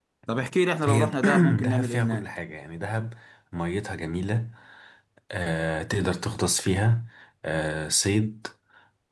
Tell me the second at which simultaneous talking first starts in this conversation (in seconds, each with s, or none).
0.9 s